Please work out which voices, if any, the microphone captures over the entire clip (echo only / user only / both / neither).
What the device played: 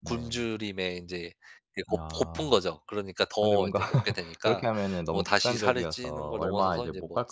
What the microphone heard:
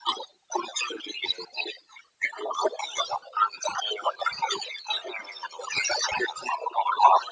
echo only